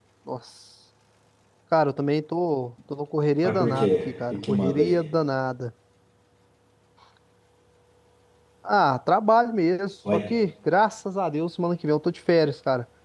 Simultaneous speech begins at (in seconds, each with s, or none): 3.4 s